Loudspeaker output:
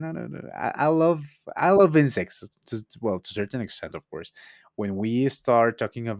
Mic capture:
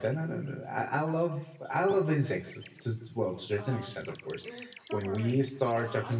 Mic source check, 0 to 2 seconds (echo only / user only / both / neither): echo only